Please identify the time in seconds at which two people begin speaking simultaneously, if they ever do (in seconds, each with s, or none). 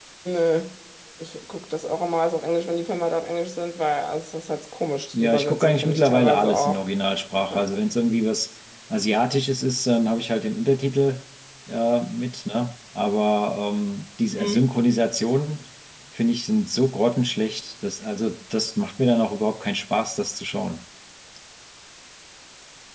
5.1 s